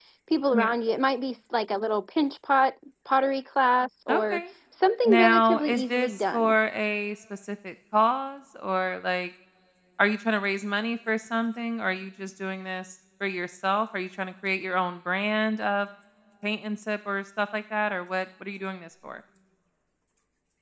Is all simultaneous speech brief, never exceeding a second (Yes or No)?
No